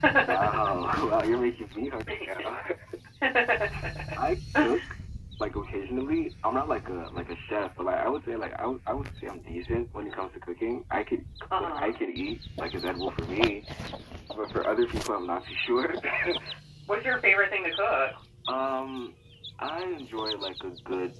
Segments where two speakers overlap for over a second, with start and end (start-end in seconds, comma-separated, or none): none